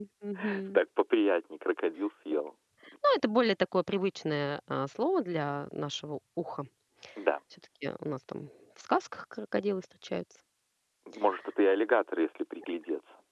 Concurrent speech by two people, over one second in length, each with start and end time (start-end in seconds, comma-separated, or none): none